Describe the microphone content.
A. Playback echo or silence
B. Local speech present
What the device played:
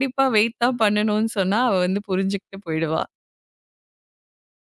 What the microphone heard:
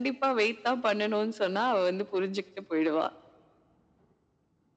A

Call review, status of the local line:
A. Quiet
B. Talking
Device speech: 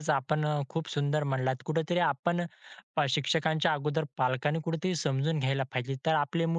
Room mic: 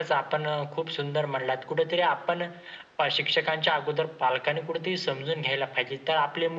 A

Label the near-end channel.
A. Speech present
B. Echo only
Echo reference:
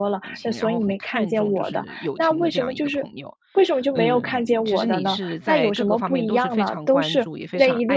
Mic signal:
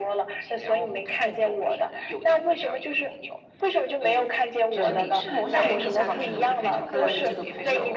A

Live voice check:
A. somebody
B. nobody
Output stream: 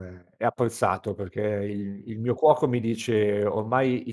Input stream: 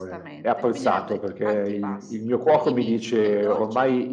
A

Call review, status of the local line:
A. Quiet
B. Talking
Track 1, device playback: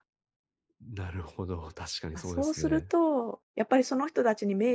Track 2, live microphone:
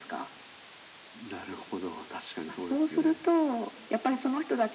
A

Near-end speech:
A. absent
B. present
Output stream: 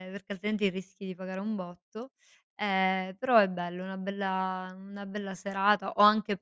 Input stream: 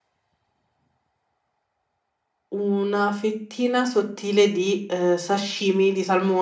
B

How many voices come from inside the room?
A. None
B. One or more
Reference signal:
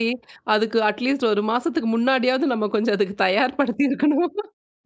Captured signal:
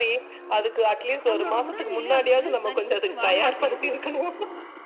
B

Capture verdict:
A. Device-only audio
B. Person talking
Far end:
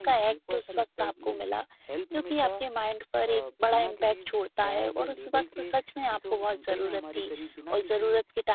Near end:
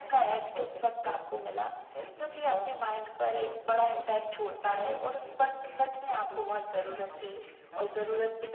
A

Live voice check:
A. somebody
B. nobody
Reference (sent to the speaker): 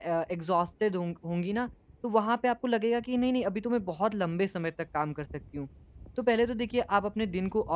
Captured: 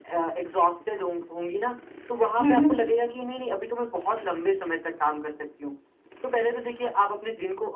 A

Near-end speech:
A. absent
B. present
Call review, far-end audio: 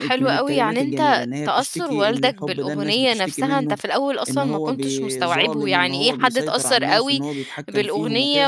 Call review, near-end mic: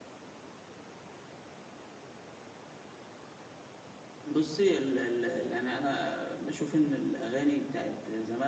B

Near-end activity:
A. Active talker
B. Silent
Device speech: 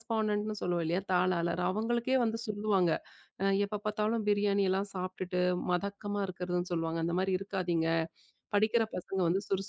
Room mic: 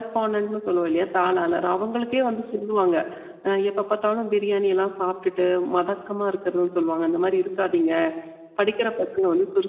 B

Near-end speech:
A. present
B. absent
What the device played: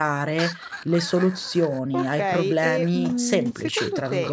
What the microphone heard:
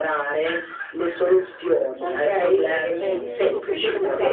A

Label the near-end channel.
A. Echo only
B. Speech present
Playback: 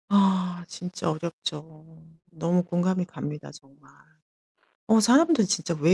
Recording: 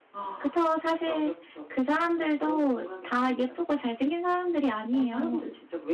B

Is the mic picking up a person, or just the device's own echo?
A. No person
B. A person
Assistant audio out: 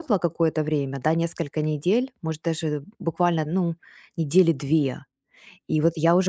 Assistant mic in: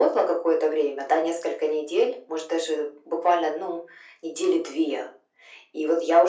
A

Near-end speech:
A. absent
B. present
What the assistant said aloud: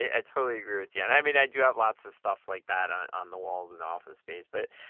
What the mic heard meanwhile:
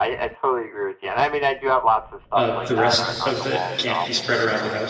B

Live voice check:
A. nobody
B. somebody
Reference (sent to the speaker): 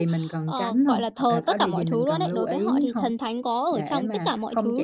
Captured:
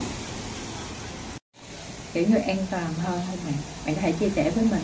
B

